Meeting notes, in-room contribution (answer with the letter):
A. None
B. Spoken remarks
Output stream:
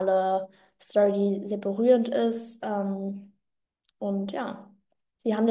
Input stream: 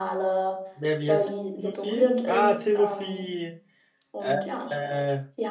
B